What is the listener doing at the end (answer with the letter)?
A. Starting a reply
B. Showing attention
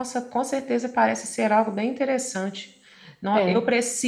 B